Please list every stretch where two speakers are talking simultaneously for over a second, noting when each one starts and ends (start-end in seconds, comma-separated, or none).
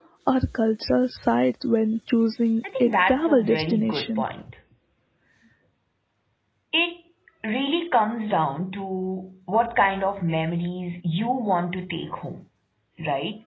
2.8-4.2